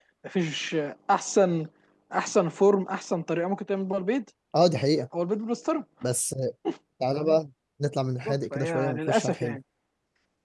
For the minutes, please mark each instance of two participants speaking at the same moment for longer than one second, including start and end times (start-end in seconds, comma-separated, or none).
8.2-9.6